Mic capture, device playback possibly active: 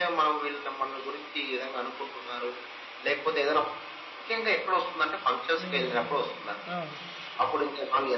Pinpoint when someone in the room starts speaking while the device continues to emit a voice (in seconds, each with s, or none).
5.6 s